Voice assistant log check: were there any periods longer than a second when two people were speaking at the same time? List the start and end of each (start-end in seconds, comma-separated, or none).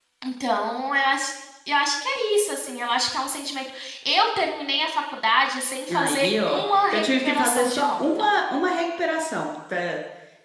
5.9-8.3